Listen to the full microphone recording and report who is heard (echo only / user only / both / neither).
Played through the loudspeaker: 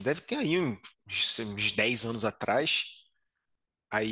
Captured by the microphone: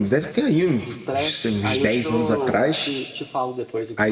both